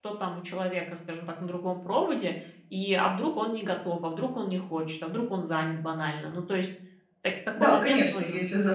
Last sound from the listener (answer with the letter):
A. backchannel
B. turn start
B